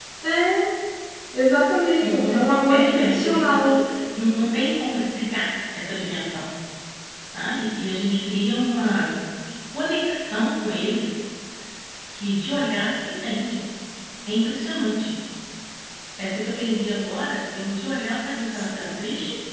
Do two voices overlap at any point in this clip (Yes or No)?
Yes